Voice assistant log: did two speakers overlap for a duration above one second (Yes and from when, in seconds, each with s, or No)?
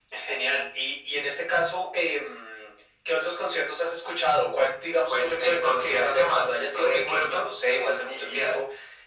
Yes, from 5.1 s